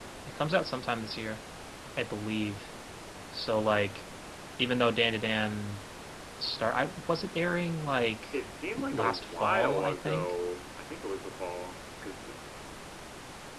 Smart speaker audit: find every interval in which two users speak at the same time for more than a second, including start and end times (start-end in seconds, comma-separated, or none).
8.9-10.3